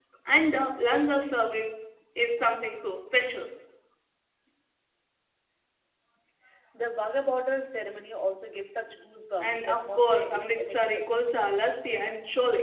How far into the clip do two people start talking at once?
9 s

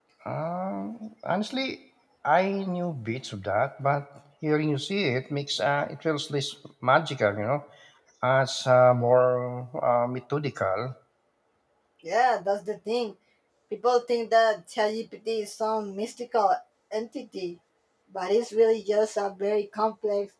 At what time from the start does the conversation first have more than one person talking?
none

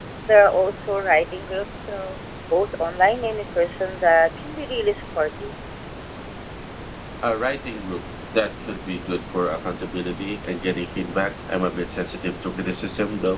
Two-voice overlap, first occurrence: none

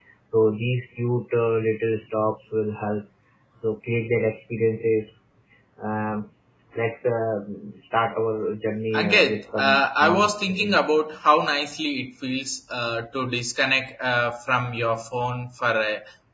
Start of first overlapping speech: 9 s

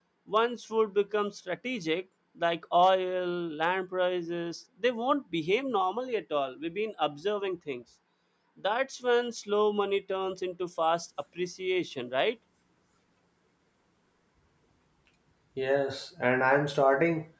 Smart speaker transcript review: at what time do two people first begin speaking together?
none

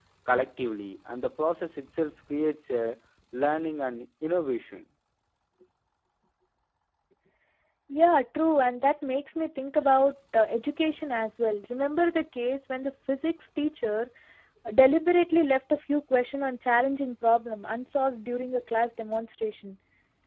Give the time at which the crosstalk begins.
none

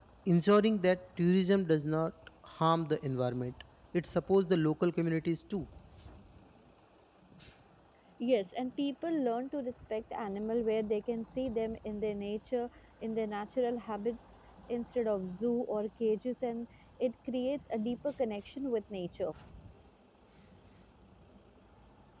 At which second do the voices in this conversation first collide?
none

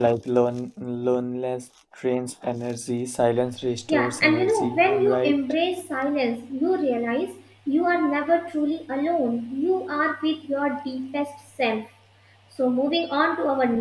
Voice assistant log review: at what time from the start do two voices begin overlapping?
4 s

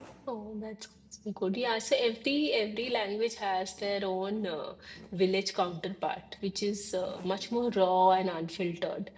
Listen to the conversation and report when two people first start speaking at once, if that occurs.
none

